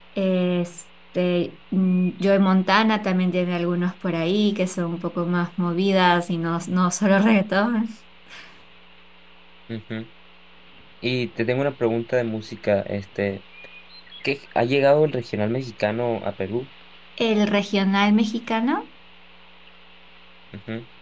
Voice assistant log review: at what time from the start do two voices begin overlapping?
none

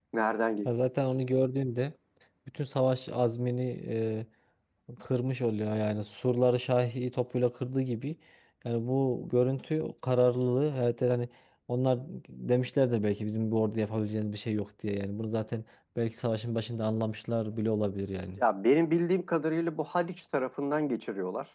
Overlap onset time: none

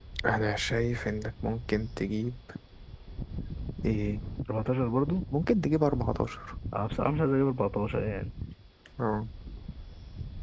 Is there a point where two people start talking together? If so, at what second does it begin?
none

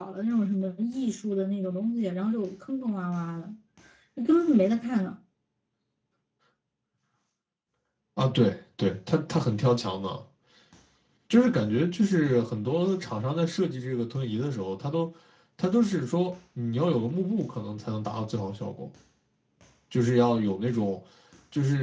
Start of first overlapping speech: none

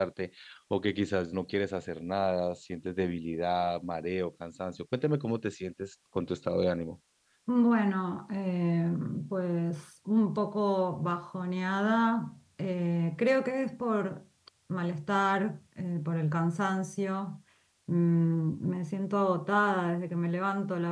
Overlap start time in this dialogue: none

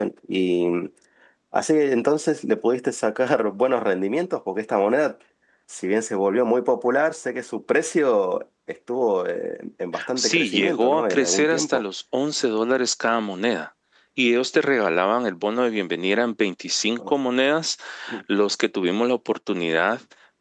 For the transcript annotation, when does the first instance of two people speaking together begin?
9.9 s

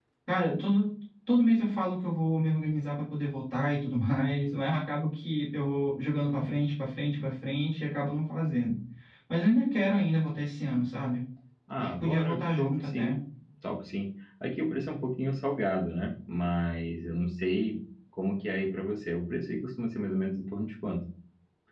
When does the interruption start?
11.8 s

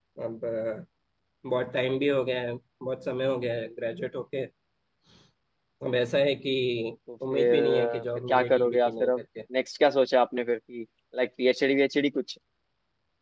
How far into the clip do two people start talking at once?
7.3 s

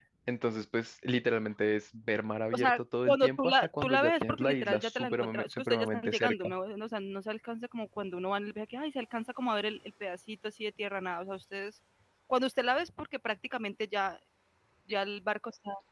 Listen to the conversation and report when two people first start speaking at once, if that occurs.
2.5 s

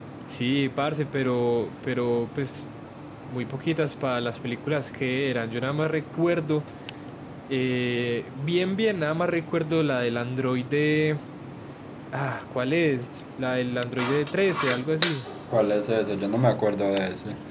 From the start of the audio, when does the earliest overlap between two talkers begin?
none

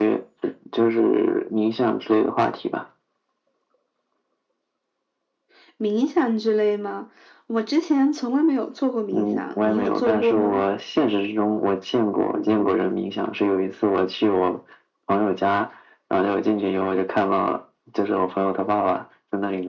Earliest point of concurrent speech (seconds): 9.1 s

